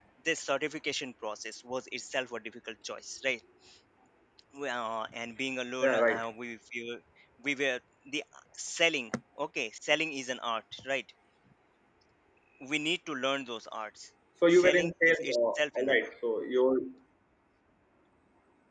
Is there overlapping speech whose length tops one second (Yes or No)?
Yes